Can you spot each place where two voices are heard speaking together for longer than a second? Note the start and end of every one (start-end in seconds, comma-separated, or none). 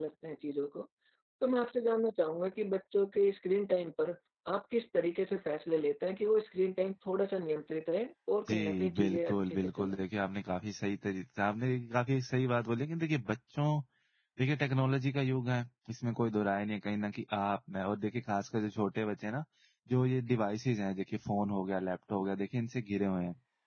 8.5-10.0